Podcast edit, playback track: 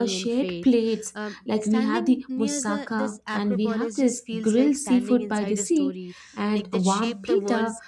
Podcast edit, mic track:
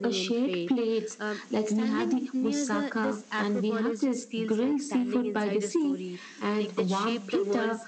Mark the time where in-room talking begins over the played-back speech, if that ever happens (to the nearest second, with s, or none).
none